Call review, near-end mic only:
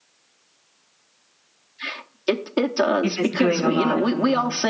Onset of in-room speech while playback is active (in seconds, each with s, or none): 3.0 s